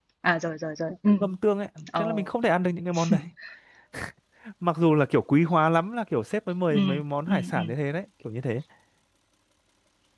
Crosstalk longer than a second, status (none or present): none